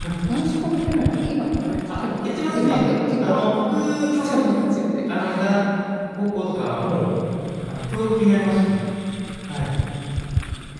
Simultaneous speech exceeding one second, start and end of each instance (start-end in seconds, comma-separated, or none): 1.9-3.5